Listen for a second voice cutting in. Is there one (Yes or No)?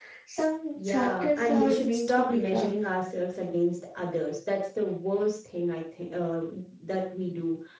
Yes